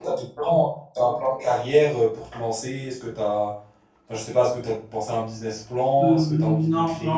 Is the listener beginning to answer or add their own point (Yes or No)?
Yes